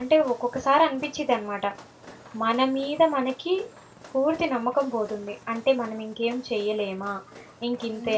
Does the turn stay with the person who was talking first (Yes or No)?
No